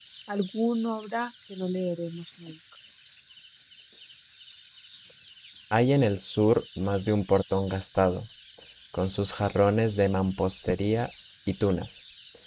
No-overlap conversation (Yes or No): Yes